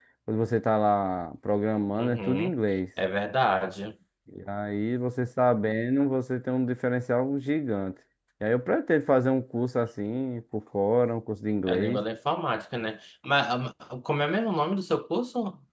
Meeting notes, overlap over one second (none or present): none